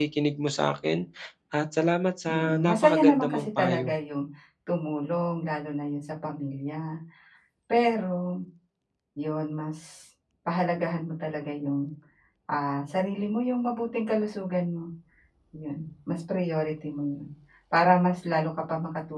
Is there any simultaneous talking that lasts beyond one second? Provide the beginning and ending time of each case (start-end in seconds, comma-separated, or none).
2.3-3.9